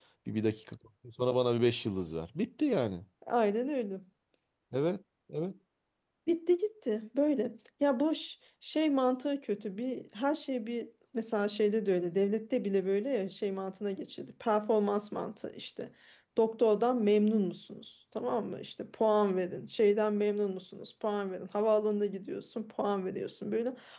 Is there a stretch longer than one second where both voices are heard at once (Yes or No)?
No